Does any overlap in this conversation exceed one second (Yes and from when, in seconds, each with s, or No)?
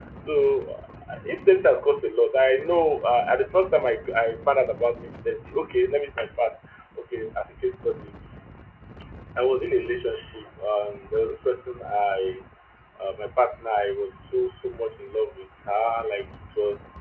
No